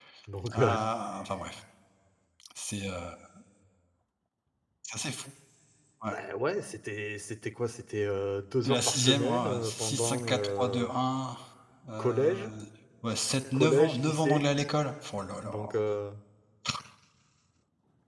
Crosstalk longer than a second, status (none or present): present